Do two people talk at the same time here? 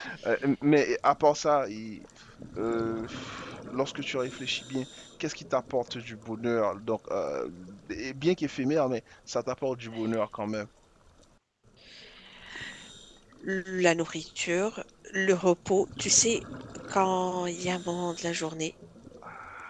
No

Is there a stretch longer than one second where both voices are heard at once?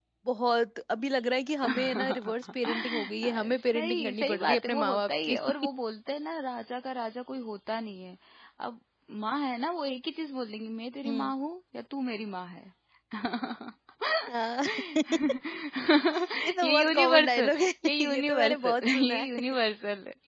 Yes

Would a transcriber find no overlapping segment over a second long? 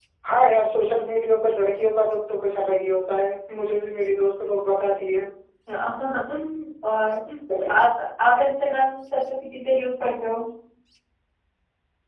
Yes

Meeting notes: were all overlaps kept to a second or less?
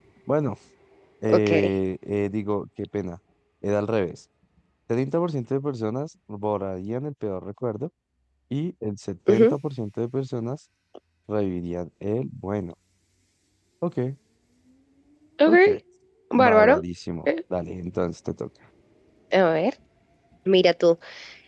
Yes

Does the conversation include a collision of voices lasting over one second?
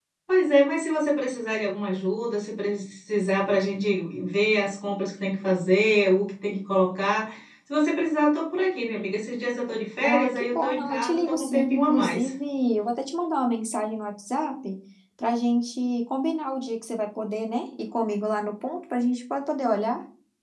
Yes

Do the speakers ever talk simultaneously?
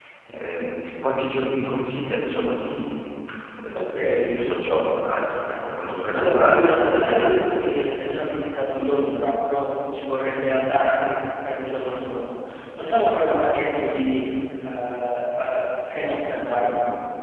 Yes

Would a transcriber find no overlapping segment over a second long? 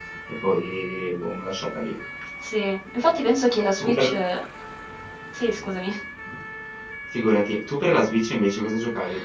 Yes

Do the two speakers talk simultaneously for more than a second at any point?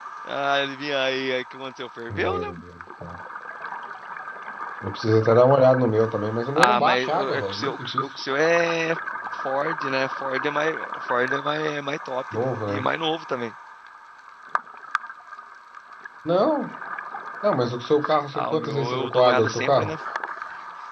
Yes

